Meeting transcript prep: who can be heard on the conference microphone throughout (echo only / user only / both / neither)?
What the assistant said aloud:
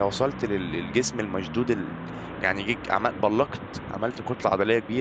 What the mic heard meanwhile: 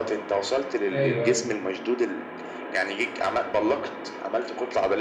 both